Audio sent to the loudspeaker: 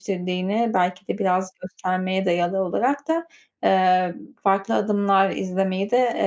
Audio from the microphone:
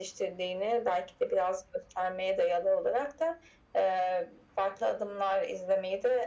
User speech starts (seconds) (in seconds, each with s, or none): none